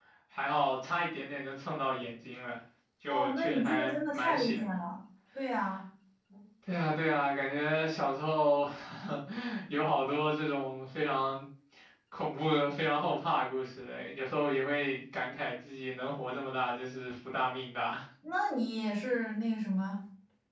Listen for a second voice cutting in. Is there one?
Yes, from 3.1 s

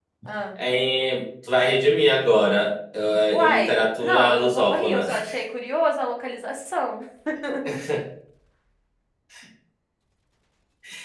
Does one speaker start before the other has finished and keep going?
Yes, from 3.3 s

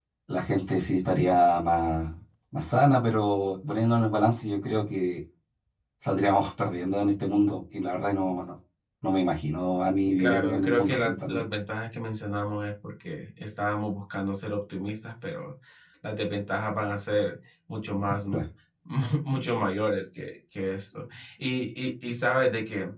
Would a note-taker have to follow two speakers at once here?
Yes, from 10.2 s

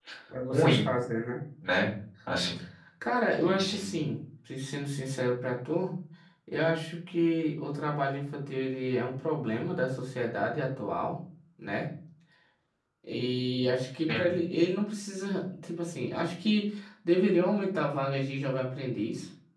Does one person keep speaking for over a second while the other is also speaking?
No

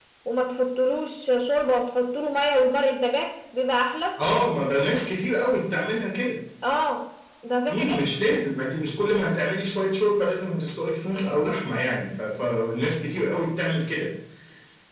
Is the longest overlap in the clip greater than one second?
No

